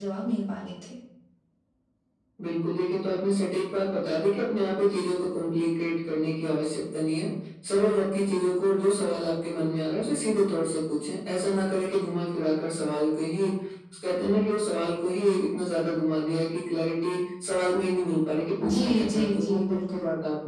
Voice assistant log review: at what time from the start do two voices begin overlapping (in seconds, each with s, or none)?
18.6 s